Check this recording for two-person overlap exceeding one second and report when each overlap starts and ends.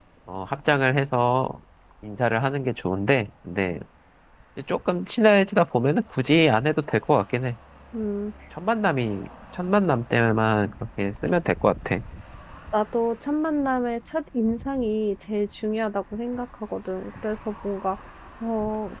none

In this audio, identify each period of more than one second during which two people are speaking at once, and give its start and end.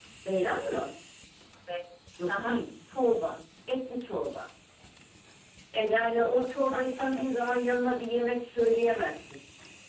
5.9-7.3

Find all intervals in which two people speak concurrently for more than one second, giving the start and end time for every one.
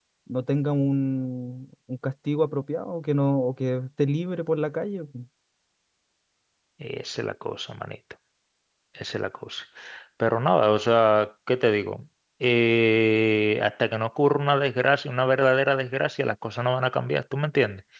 none

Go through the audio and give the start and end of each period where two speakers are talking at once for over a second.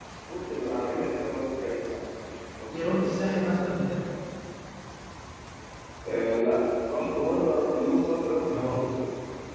2.7-3.9

